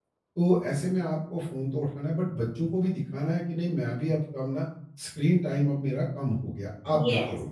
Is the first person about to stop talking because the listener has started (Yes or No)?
Yes